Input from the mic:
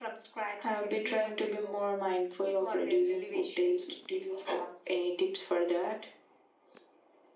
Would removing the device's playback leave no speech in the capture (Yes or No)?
Yes